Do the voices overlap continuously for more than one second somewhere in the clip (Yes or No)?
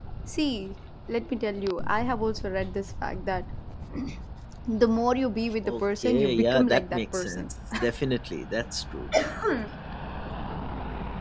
Yes